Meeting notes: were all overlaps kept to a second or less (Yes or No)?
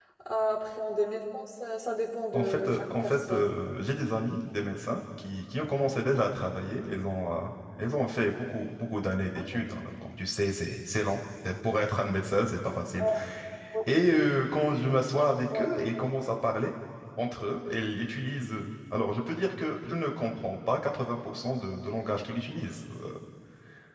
No